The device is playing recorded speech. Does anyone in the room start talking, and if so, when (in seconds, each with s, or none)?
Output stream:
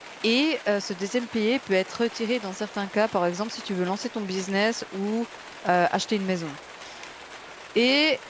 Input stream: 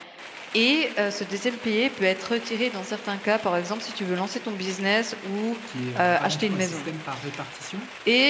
5.6 s